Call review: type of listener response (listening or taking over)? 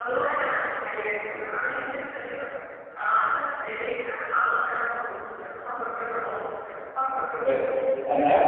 taking over